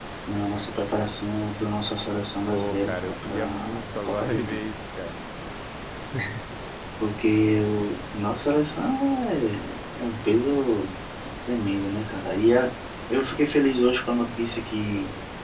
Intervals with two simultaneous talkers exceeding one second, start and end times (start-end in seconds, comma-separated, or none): 2.5-4.7